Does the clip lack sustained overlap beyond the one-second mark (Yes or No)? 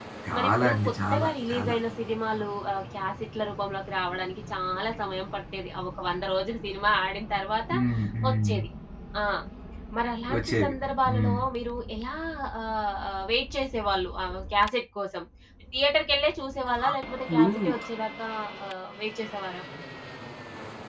No